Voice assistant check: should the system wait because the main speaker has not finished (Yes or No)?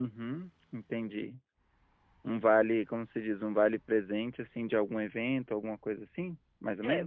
No